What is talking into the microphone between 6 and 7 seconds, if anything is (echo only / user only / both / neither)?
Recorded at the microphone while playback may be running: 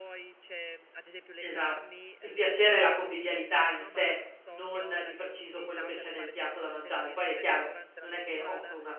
both